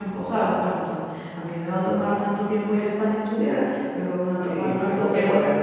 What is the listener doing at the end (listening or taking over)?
taking over